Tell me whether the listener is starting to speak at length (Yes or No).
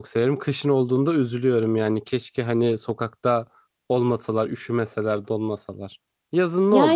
Yes